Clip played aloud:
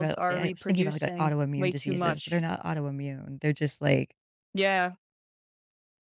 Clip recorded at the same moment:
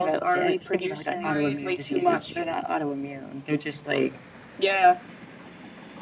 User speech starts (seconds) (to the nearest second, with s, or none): 1 s